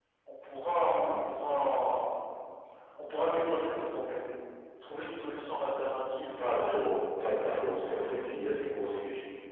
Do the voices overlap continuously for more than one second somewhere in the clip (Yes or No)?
No